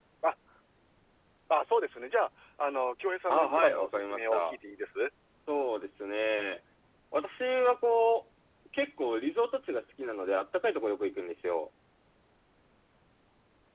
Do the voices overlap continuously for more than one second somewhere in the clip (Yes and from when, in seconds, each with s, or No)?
Yes, from 3.3 s